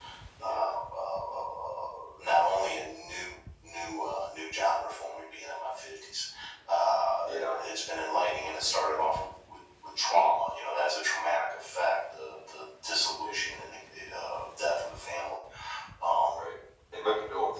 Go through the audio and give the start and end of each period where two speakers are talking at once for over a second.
none

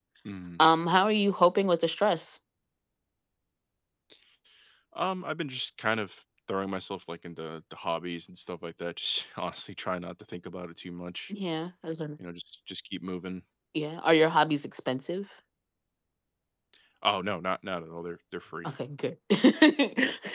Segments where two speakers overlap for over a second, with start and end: none

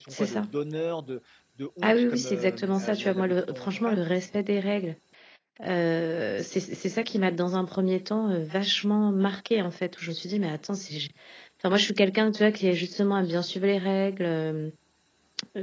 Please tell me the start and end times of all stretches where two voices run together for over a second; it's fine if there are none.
1.8-4.0

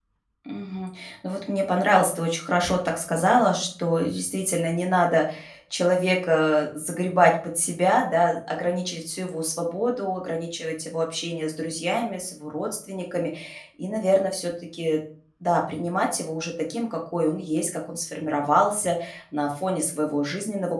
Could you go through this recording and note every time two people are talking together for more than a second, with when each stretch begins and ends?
none

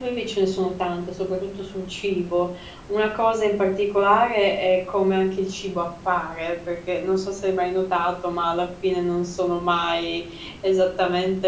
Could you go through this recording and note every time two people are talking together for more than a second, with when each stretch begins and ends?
none

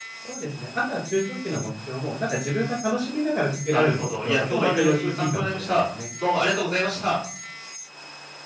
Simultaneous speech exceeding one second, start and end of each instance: 3.7-5.8

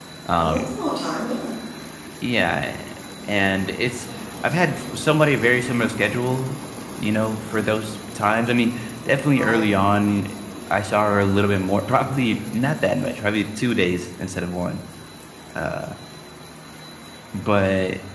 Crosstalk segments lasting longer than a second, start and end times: none

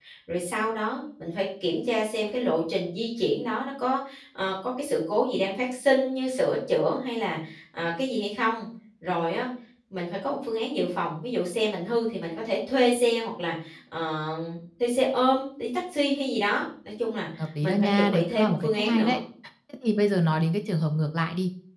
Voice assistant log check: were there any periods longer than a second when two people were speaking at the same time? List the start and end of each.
17.6-19.2

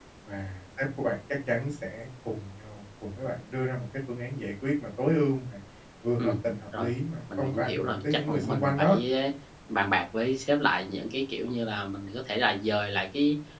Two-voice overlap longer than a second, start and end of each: 7.4-9.0

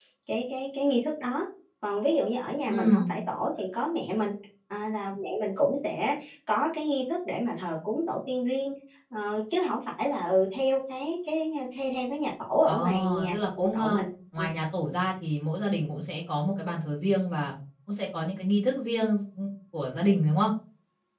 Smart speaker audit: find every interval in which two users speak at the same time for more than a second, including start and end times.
12.7-14.0

